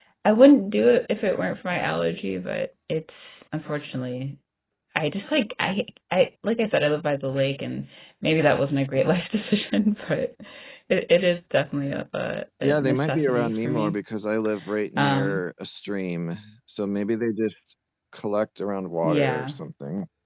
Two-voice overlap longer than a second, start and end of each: 12.6-13.9

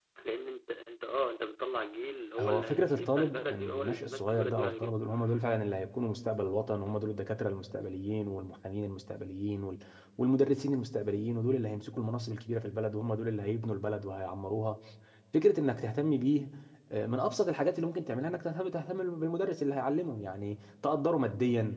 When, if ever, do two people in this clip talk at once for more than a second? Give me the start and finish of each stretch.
2.4-4.9

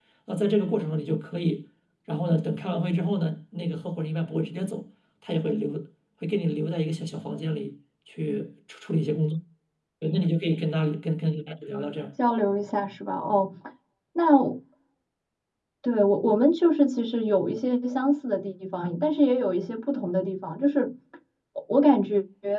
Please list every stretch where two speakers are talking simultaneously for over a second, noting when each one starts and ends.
none

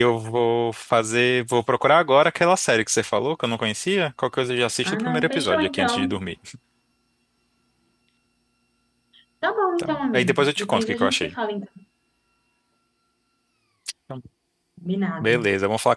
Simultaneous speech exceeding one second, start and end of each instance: 4.8-6.2, 9.8-11.3

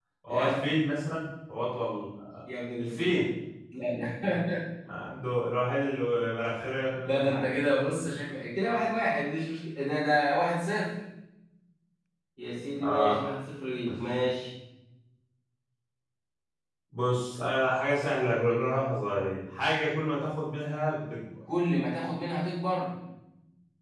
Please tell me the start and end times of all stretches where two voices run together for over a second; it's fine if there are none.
none

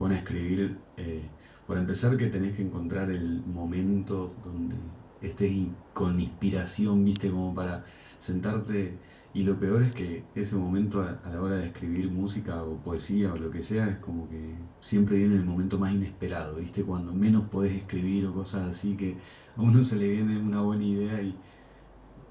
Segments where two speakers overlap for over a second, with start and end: none

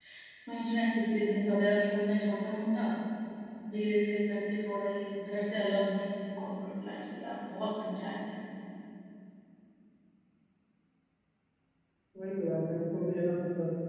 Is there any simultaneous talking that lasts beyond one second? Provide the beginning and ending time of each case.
none

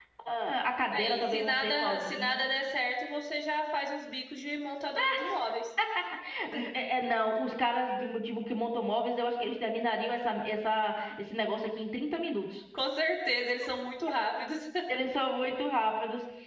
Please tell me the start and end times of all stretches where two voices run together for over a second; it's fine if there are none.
0.9-2.4

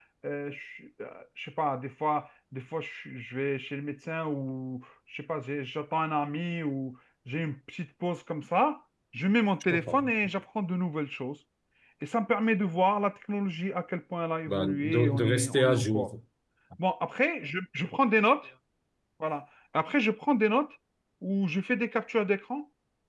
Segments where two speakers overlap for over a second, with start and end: 14.5-16.1

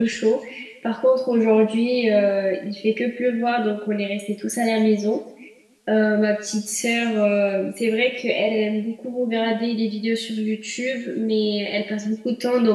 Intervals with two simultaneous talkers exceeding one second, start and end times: none

